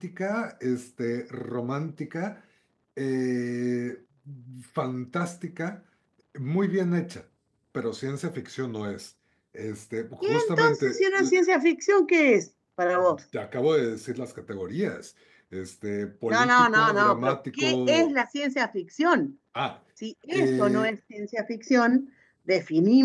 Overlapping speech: Yes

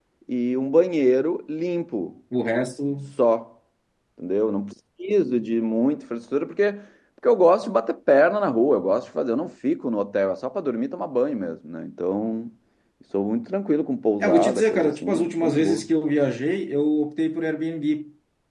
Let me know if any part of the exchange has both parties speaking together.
Yes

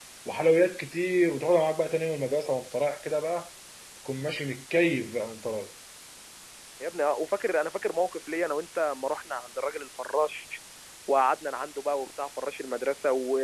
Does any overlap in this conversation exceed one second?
No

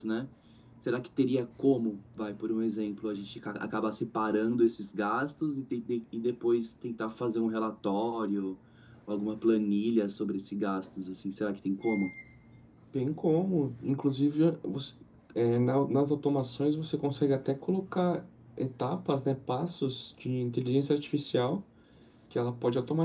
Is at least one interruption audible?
No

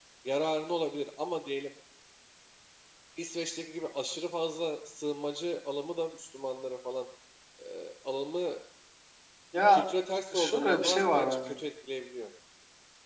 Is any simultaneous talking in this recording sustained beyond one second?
Yes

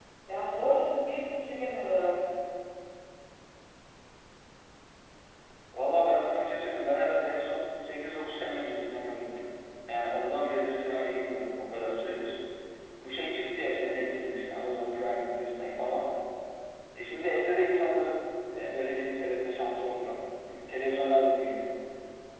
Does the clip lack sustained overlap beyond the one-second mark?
Yes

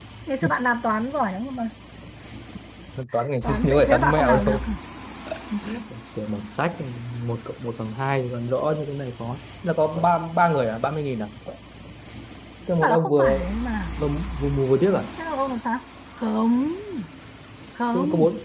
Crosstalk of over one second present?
Yes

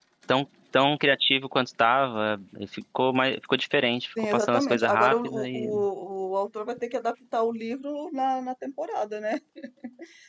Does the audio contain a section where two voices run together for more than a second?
Yes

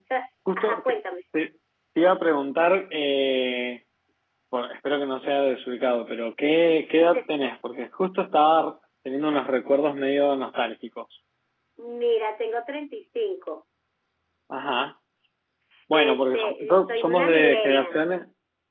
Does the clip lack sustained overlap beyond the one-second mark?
No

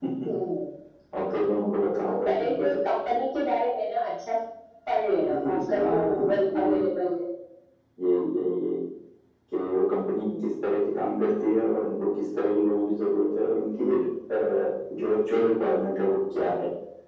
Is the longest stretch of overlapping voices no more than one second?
No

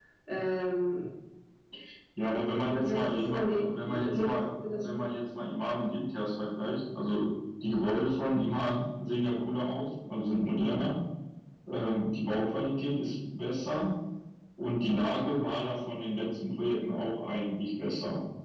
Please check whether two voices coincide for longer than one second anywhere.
Yes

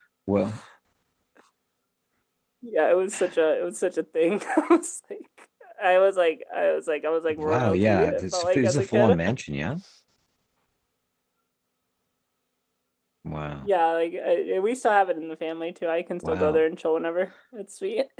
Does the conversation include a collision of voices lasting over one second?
Yes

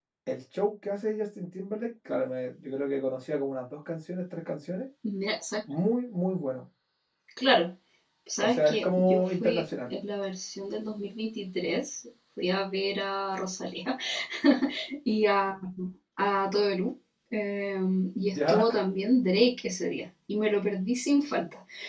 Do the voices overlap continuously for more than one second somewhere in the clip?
Yes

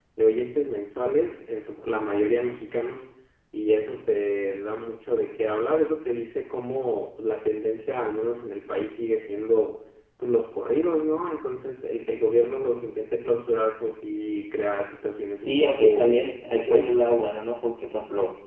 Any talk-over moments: Yes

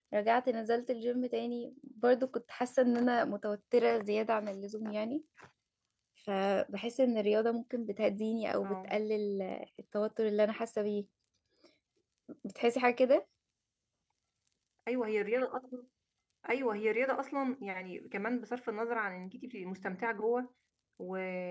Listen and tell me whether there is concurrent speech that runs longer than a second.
No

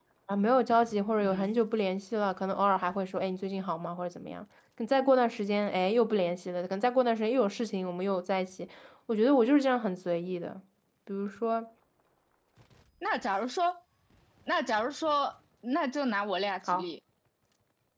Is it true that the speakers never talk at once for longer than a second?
Yes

